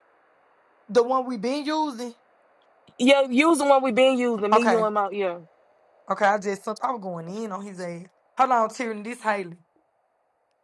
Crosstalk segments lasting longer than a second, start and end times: none

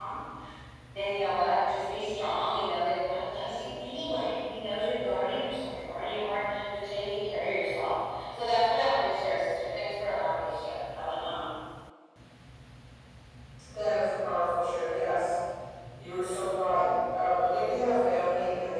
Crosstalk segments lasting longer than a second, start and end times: none

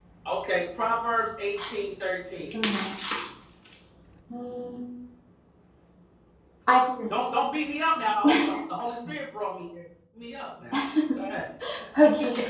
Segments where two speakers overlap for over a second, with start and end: none

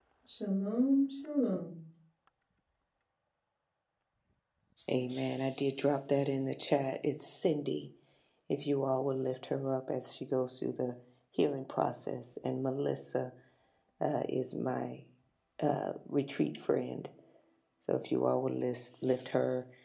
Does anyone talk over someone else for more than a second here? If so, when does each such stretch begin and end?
none

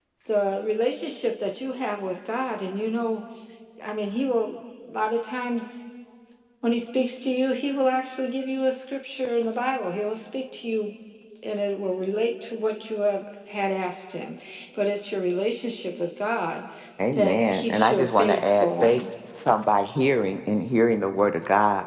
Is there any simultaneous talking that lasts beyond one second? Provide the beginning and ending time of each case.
17.1-19.1

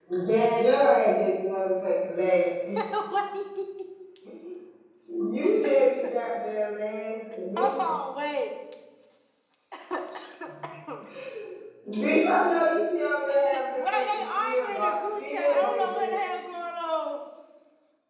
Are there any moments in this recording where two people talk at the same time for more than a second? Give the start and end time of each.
13.5-16.2

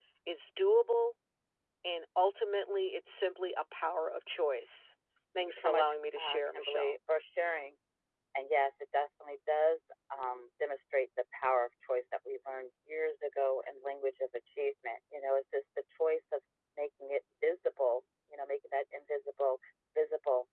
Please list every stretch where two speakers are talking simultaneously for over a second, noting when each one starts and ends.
5.4-6.9

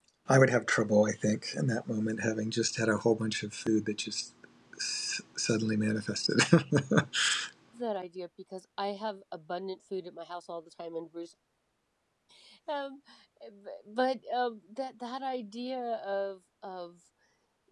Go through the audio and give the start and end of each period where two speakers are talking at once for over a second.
none

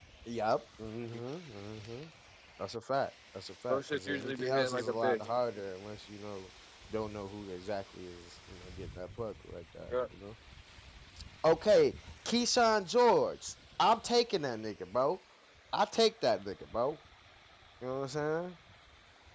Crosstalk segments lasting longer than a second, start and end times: 3.7-5.3

